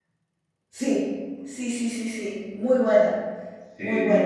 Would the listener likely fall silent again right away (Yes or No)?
Yes